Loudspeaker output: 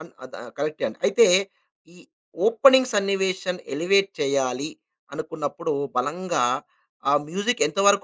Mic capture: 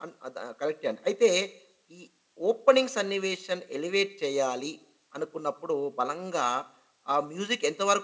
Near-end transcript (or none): none